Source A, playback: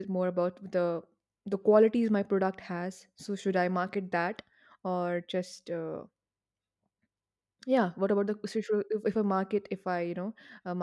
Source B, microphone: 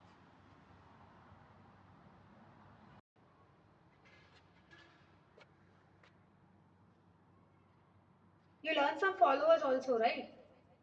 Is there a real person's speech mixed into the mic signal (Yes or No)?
Yes